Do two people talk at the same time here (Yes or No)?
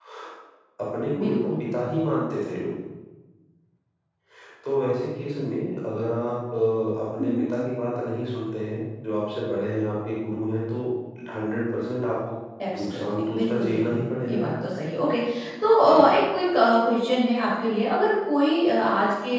Yes